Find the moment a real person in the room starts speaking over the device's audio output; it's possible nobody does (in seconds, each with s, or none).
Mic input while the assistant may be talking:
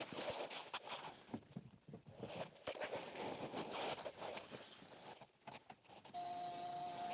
none